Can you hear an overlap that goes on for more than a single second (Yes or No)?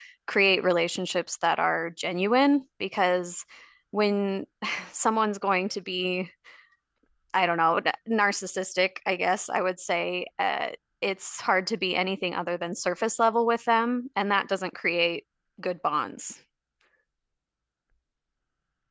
No